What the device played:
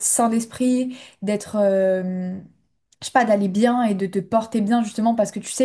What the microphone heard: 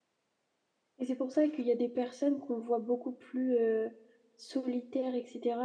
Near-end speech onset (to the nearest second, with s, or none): 1 s